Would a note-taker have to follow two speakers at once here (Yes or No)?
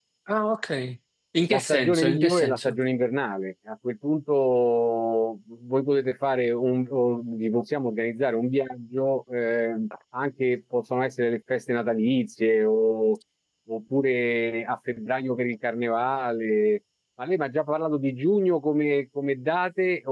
Yes